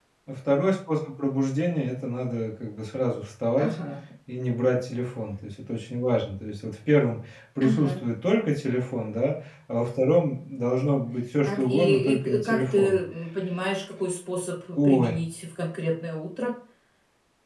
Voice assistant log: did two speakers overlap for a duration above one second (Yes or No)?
Yes